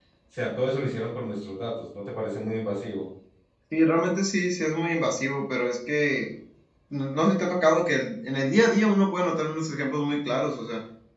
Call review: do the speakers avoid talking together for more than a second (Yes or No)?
Yes